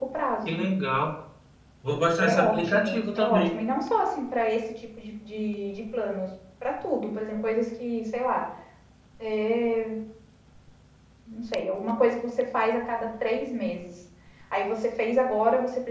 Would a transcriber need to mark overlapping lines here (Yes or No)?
Yes